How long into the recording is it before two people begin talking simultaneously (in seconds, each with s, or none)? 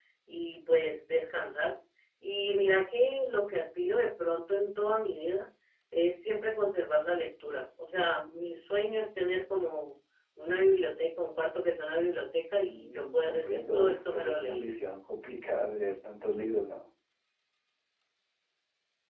12.6 s